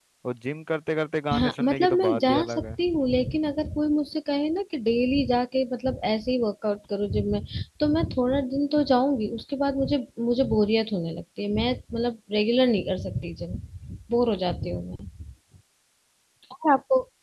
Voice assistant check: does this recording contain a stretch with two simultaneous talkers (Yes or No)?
Yes